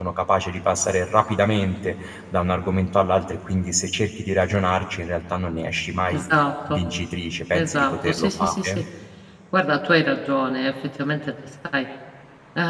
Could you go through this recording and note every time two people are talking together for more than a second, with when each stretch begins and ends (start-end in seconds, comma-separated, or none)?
7.5-8.8